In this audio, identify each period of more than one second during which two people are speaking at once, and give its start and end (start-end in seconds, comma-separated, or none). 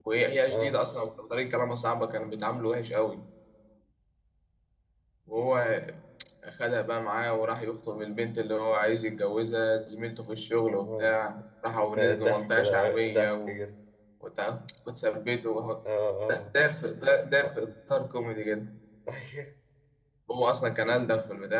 11.9-13.6